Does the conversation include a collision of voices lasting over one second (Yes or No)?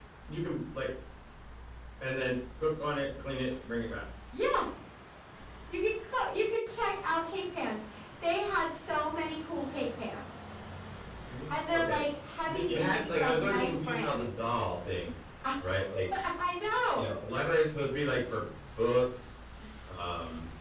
Yes